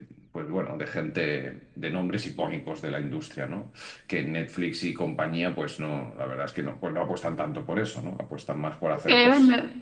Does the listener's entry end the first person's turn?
Yes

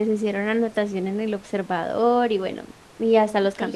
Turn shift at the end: No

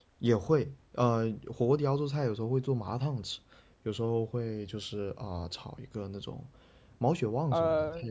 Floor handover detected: Yes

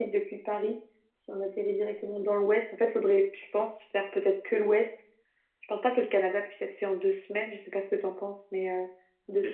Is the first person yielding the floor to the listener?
Yes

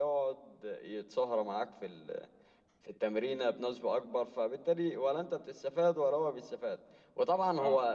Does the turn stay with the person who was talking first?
Yes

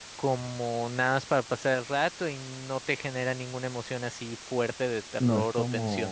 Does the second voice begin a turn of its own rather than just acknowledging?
Yes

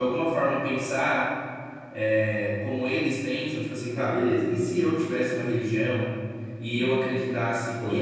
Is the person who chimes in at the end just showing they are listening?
Yes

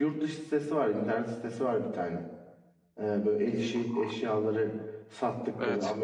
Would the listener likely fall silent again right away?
Yes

